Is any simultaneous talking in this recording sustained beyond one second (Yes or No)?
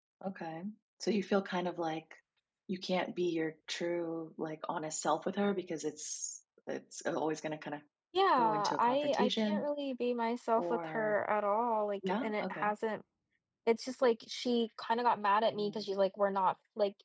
Yes